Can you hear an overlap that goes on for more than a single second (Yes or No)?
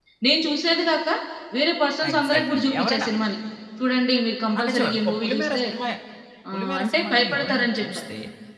Yes